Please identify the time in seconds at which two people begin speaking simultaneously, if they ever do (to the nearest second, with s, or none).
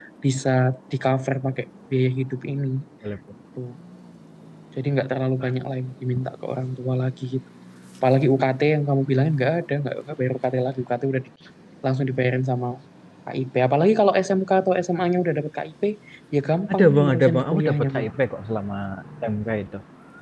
17 s